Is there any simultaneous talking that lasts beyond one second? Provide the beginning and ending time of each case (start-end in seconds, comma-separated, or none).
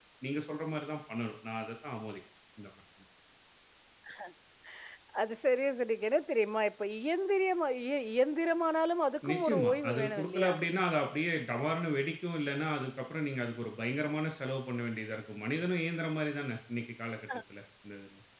9.3-10.5